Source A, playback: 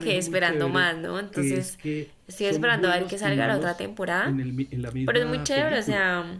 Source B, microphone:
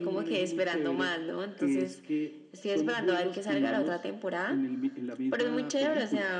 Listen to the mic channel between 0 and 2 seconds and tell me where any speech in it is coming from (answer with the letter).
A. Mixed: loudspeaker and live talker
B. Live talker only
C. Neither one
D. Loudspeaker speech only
D